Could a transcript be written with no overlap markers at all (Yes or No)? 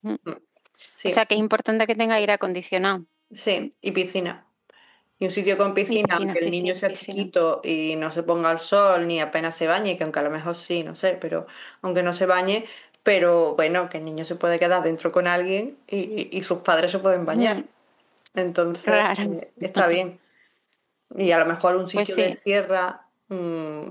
No